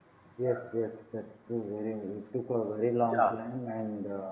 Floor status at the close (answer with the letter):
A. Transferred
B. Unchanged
B